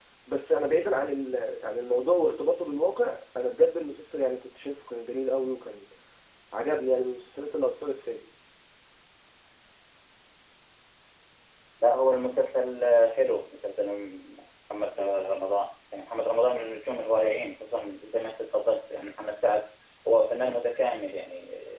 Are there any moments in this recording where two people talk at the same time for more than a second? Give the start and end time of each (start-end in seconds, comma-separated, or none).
none